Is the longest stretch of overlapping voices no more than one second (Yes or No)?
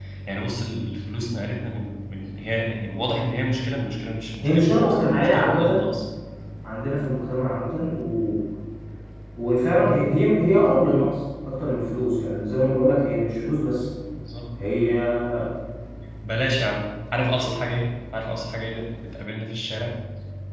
No